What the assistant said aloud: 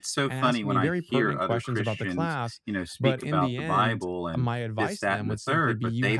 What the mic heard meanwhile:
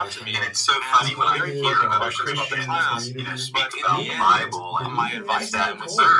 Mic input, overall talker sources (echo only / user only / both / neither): both